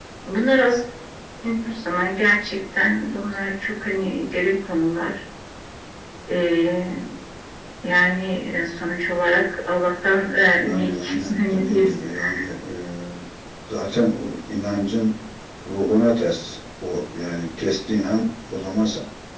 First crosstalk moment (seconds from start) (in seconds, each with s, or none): 10.6 s